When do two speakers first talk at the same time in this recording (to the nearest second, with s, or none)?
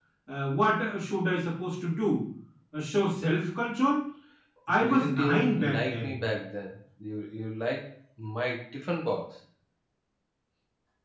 5 s